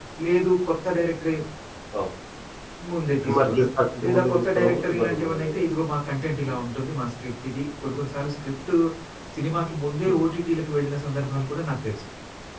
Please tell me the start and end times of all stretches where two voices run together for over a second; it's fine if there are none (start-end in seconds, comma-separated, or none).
4.0-5.6